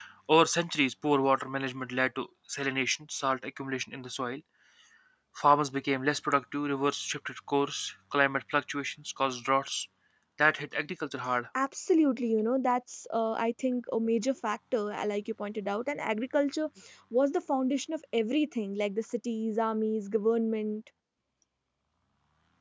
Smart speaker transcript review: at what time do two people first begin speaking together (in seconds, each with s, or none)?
none